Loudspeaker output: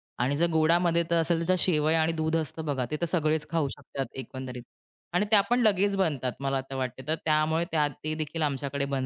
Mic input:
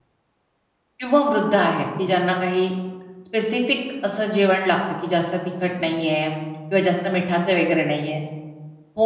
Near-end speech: present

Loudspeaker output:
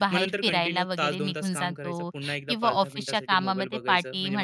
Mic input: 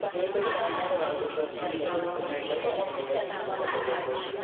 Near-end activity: present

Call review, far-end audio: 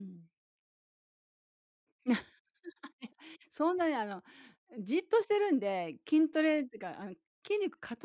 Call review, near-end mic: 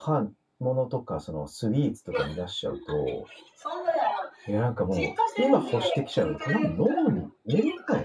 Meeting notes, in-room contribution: present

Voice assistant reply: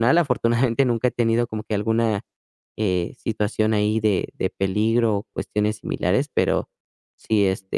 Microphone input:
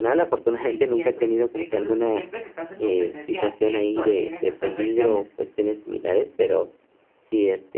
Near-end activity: present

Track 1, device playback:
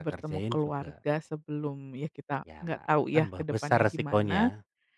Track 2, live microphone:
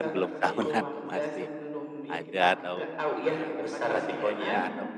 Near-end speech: present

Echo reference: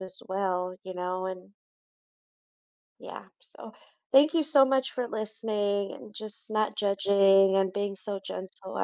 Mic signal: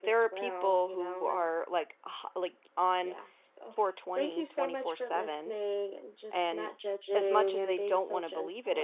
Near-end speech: present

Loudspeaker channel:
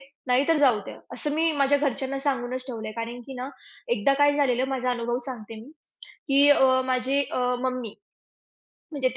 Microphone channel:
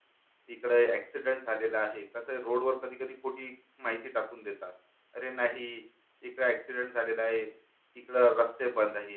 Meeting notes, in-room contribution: present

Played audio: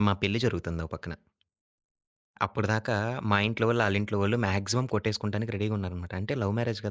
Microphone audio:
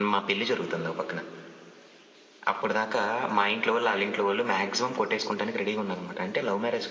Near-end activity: none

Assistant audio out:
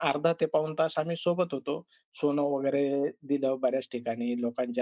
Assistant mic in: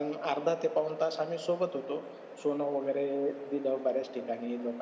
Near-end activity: none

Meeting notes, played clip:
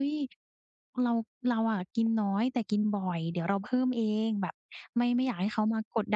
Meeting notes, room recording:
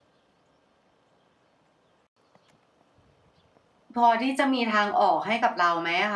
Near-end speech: present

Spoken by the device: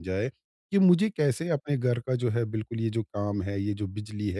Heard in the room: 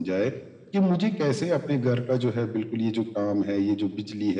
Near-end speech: none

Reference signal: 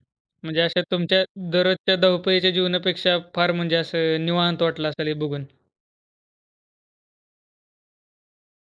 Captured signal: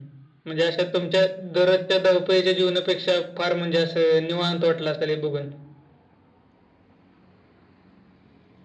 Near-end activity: none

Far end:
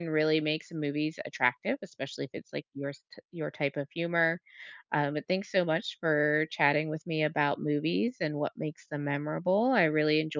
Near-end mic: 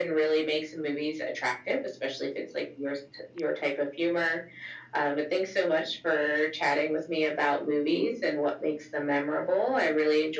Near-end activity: none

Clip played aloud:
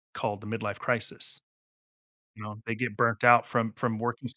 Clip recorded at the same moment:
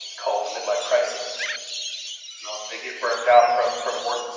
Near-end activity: none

